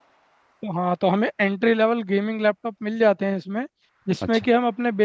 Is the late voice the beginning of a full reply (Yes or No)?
No